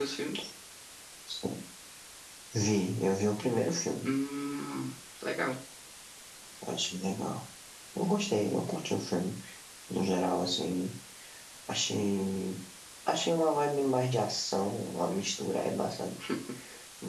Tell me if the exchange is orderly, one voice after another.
Yes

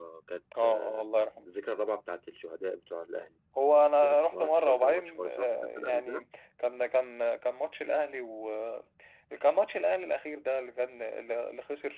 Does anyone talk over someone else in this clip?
Yes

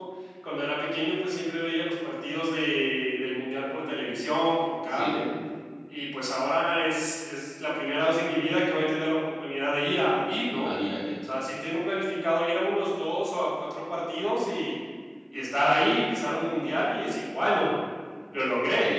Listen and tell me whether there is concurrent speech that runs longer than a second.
No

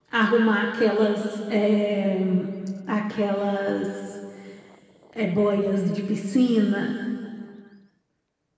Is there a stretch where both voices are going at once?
No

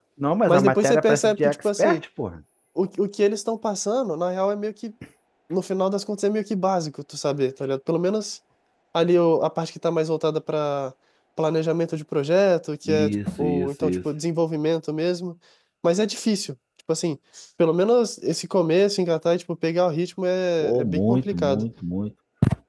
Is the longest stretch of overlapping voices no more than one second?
No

